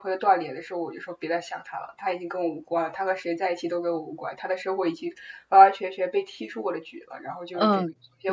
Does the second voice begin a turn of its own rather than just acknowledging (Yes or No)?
Yes